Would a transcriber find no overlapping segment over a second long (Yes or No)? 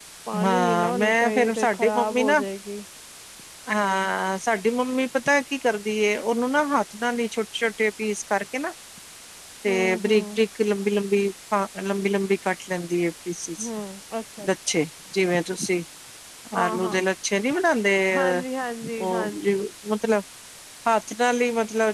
No